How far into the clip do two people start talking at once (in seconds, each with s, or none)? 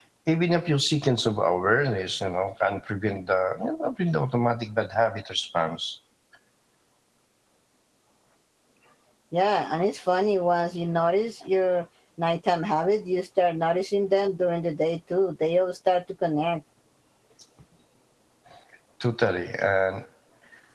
none